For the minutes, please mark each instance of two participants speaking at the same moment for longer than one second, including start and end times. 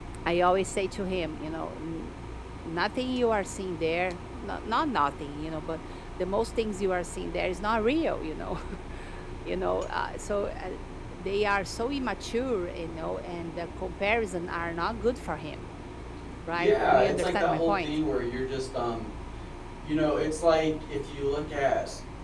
16.5-17.9

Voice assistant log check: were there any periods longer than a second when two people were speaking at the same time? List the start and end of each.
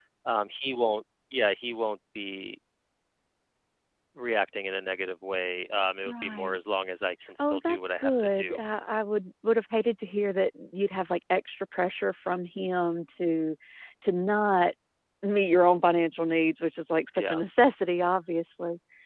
7.4-8.6

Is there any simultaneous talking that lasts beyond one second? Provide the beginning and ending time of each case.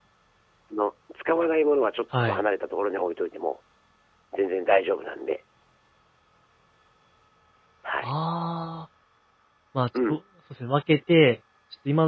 none

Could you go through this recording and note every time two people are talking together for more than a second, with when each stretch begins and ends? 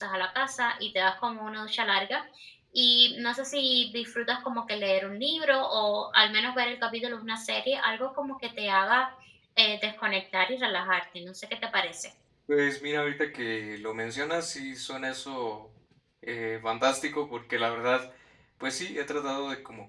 none

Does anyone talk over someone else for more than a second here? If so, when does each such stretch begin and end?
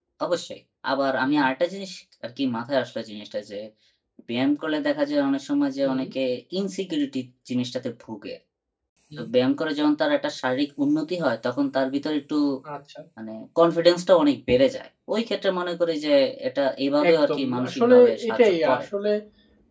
17.1-18.9

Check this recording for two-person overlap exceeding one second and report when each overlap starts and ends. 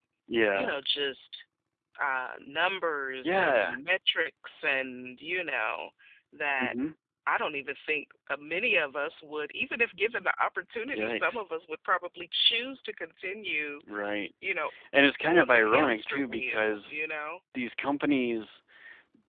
15.3-17.0

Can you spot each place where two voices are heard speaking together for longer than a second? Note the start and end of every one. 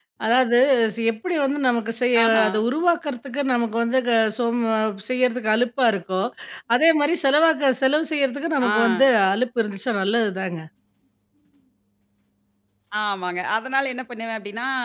none

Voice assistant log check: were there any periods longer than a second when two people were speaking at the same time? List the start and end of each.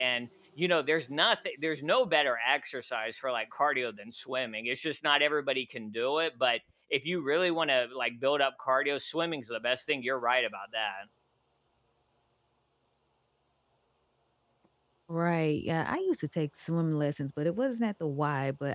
none

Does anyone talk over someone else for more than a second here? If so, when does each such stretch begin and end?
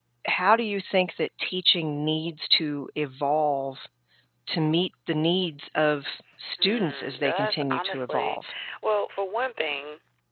6.6-8.4

